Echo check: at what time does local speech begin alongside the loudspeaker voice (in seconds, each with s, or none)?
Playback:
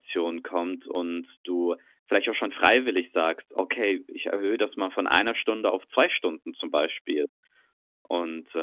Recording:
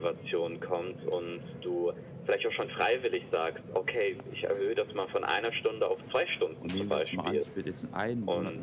6.6 s